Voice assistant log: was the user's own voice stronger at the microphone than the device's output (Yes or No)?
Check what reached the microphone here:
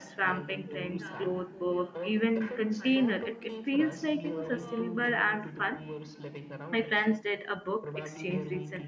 Yes